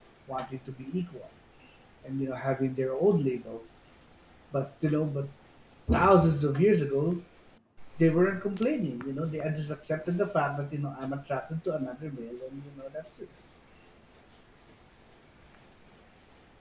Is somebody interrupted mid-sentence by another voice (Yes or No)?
No